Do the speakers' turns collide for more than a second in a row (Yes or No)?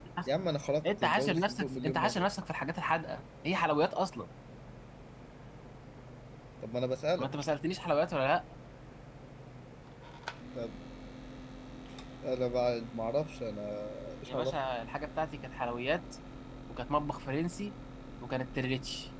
Yes